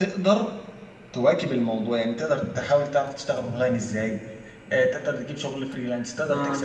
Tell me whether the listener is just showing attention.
Yes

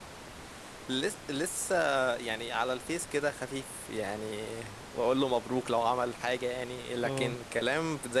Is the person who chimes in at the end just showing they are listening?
Yes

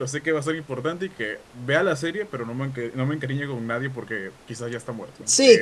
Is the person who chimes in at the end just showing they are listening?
No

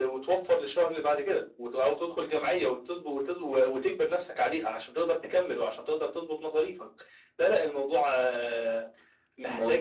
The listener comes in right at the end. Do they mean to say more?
No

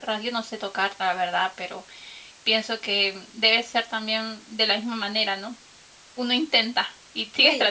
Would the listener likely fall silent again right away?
No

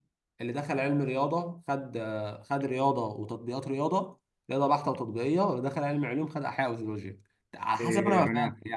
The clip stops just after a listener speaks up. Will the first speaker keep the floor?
No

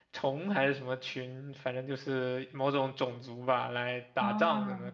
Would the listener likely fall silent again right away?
Yes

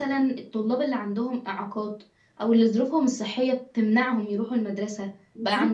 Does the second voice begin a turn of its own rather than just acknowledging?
No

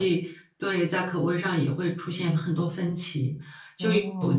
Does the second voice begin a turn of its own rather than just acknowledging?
No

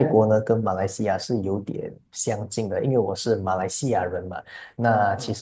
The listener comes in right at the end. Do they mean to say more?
No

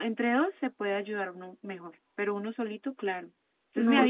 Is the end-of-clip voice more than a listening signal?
Yes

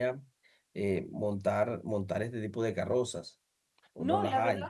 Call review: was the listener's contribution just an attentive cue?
No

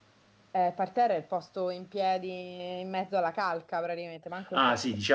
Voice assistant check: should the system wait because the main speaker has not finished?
No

